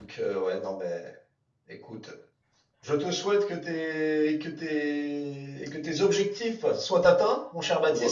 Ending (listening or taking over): taking over